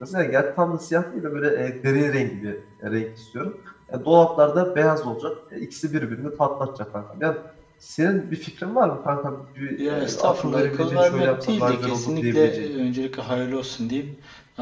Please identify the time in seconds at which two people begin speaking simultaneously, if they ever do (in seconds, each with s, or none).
9.8 s